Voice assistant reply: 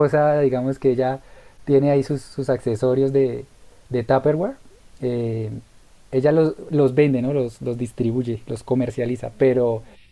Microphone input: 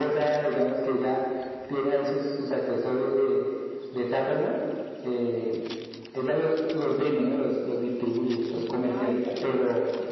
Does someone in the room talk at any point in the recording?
Yes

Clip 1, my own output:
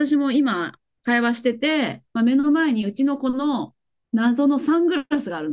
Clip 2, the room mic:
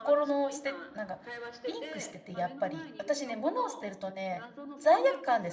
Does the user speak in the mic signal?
Yes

